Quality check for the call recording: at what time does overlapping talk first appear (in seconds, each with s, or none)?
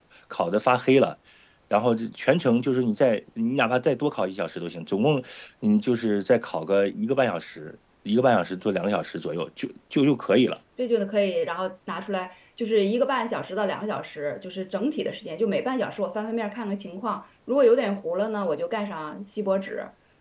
none